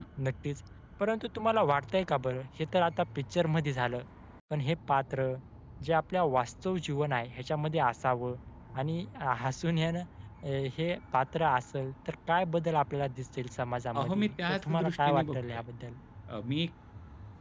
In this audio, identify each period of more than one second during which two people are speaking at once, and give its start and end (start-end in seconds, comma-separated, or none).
14.0-15.4